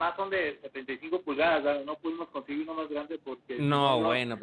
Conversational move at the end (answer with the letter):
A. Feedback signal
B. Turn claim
B